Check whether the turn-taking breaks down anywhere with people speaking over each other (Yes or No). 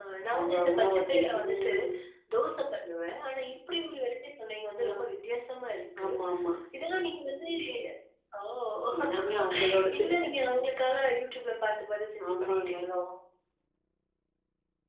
Yes